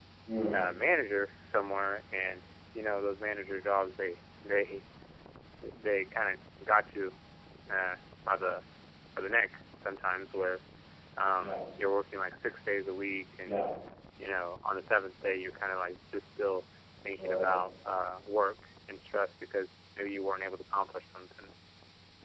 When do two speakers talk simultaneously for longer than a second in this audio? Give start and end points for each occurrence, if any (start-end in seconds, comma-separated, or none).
none